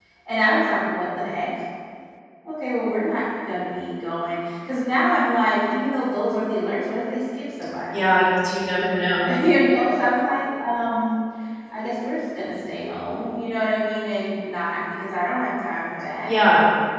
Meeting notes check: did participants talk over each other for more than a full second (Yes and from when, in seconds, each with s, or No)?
No